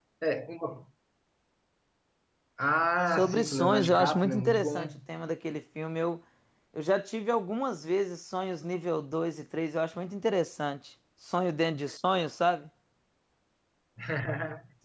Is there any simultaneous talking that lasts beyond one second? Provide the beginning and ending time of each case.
3.1-4.9

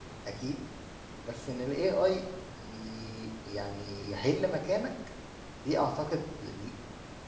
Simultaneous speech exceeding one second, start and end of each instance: none

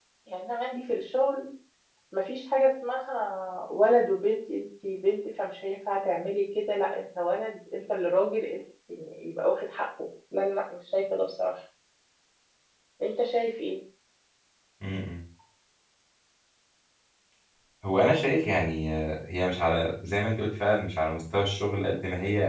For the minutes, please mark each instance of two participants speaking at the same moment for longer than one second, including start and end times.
none

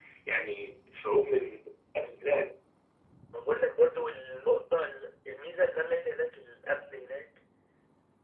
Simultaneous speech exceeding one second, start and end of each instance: none

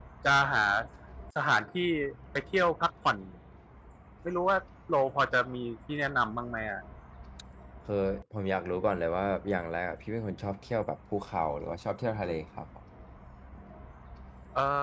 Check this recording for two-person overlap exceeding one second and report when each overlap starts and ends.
none

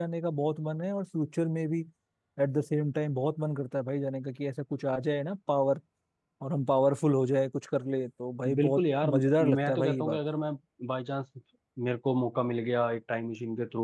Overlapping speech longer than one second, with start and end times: 8.6-10.2

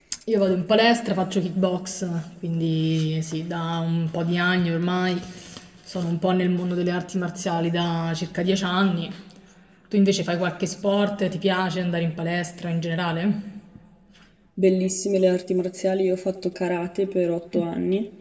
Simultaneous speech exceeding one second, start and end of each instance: none

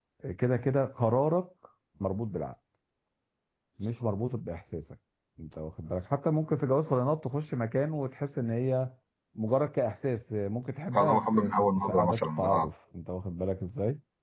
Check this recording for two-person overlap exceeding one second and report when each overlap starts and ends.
10.9-12.7

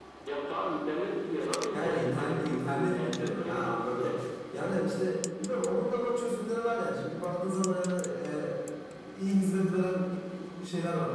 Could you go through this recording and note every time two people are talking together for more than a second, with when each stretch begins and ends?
1.7-4.1

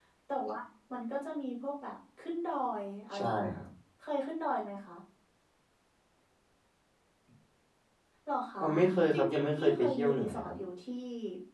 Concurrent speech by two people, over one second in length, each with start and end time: 9.1-10.5

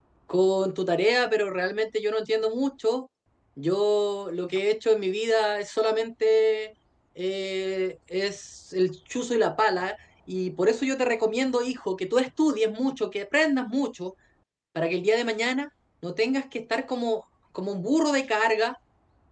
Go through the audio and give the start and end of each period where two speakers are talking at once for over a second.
none

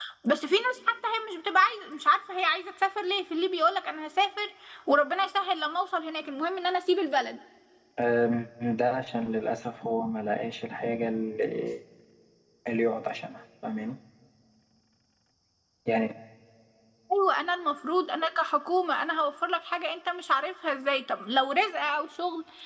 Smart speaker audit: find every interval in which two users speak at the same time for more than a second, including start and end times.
none

